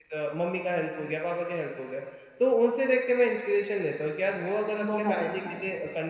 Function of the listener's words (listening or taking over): listening